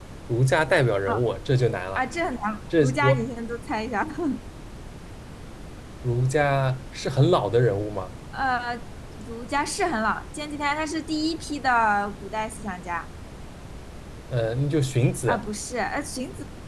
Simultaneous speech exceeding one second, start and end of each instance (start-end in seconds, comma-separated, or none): none